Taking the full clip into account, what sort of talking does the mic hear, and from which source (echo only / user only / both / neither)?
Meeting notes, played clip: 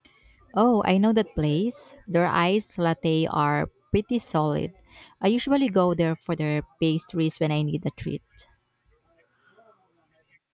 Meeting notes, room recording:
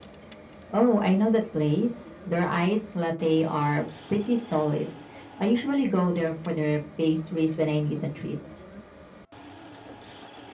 echo only